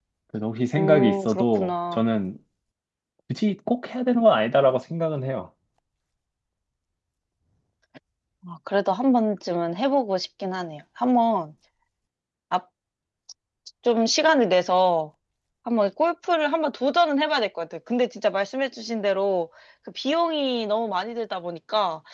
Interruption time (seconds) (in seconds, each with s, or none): 0.7 s